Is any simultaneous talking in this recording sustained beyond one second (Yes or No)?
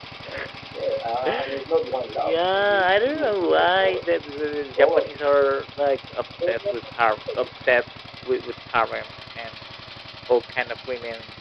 Yes